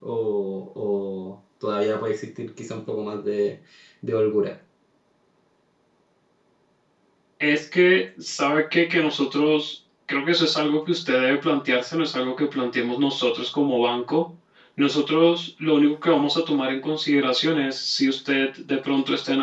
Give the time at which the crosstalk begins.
none

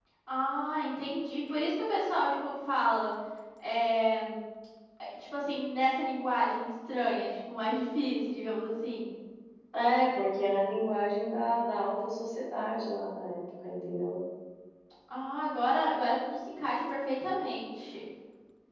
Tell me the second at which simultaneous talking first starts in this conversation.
none

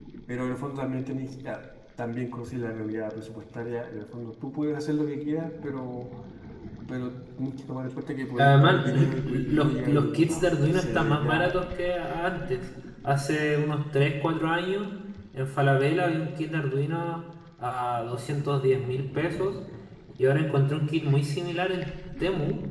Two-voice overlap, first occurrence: 8.4 s

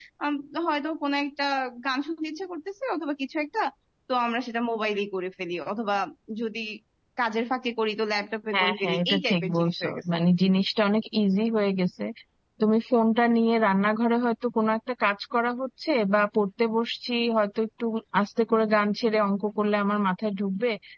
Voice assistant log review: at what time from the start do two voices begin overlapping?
8.5 s

